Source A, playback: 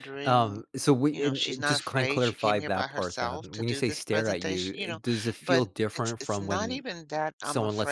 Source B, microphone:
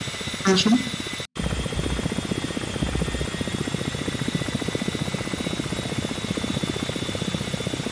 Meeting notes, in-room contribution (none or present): present